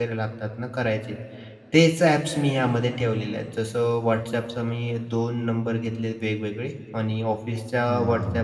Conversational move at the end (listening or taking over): listening